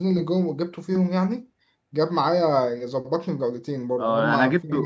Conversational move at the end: taking over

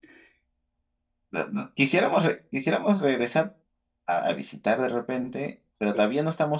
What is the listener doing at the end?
listening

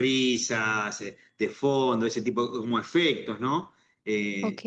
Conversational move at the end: listening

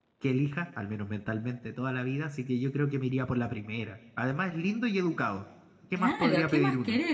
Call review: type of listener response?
taking over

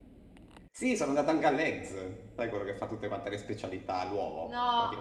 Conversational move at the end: listening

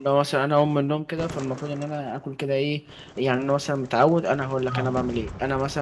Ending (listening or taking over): listening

